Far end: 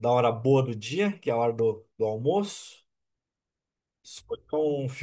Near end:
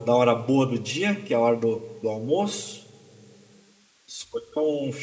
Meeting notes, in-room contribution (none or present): none